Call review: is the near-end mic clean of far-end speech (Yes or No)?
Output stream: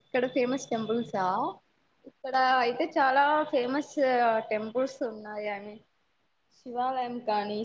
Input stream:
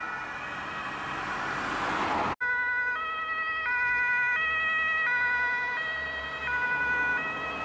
Yes